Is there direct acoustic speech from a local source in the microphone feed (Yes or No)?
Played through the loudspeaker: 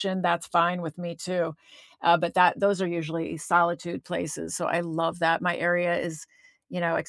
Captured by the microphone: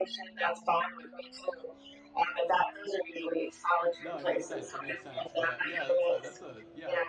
Yes